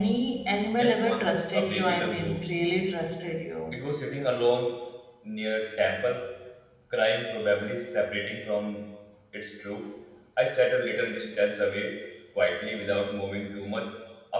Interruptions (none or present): present